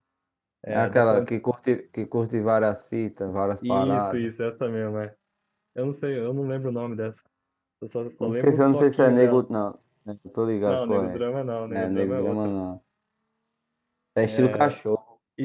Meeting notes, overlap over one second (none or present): present